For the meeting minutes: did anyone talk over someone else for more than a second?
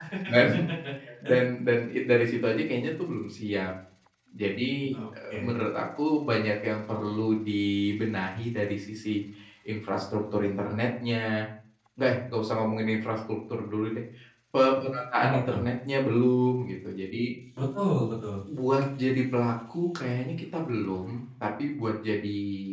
No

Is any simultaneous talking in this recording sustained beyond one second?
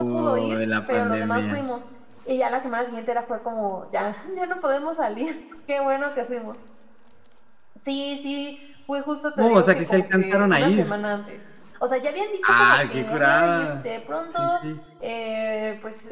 Yes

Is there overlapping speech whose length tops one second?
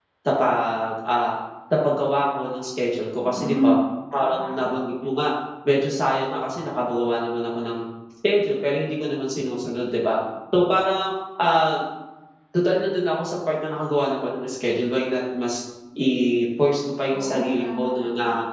Yes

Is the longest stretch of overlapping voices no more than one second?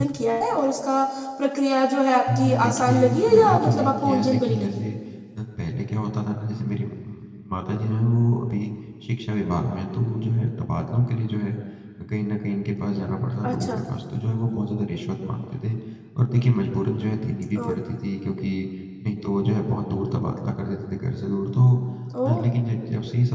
No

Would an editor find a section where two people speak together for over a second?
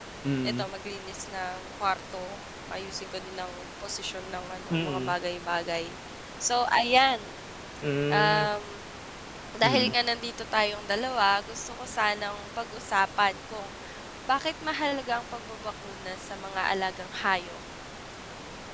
No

